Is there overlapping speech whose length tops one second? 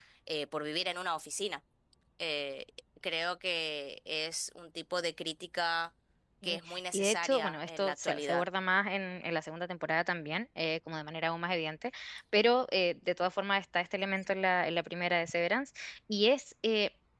Yes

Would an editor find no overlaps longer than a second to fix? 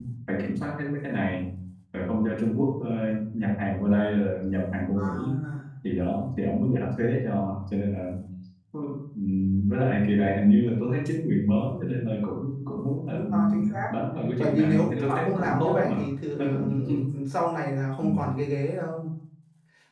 No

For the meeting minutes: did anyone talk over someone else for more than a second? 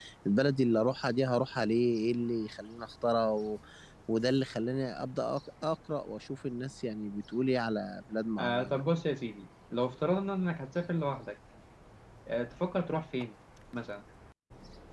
No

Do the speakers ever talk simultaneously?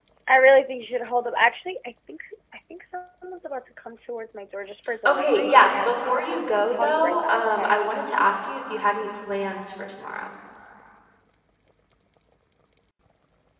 Yes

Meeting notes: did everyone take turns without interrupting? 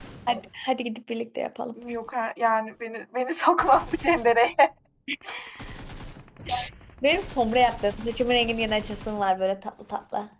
Yes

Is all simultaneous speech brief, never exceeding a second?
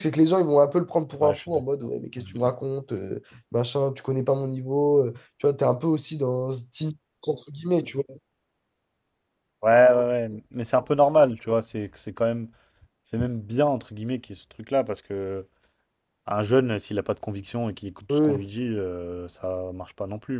Yes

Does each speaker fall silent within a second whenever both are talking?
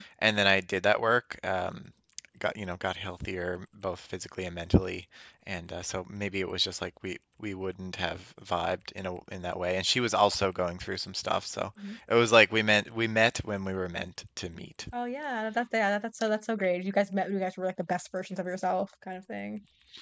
Yes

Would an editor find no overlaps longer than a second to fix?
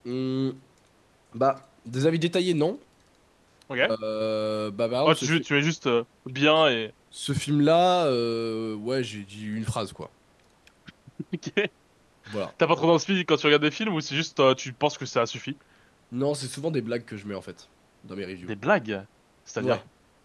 Yes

